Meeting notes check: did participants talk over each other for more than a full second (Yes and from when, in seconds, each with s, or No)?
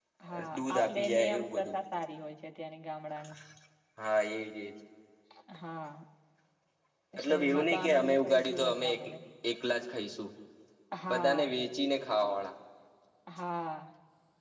Yes, from 0.5 s